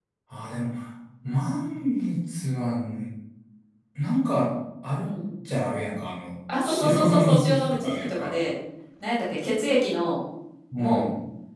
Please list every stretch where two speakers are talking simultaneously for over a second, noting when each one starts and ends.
6.6-8.4

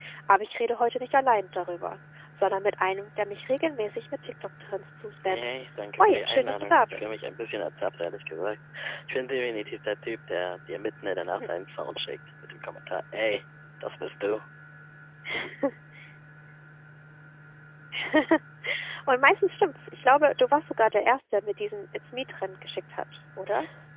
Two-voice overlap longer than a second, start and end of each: 6.0-7.2

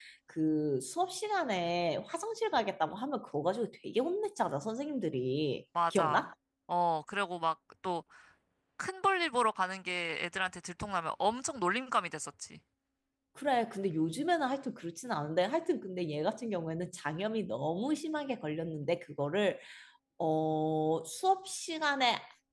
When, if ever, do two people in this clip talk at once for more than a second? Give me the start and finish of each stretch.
none

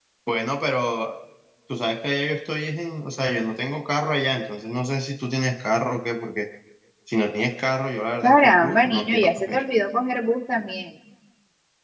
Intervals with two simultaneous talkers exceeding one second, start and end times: 8.2-9.6

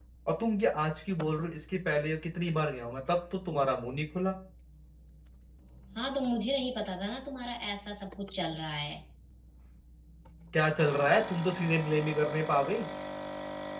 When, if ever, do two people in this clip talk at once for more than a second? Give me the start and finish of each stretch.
none

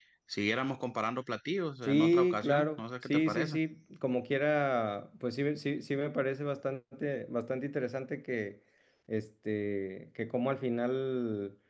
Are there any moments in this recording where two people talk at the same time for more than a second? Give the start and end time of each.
1.8-3.6

